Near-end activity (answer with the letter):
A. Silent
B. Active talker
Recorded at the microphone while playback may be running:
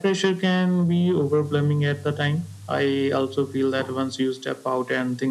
A